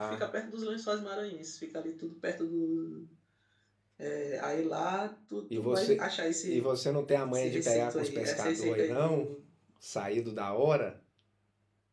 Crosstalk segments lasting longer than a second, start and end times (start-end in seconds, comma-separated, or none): 7.3-9.3